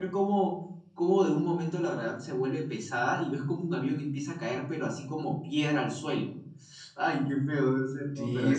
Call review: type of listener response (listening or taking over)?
taking over